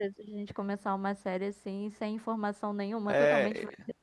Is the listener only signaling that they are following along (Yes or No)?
No